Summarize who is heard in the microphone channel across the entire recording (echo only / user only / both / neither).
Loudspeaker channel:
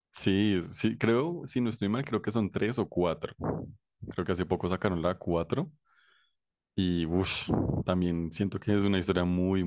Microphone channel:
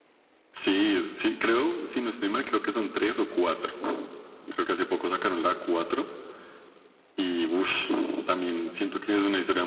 echo only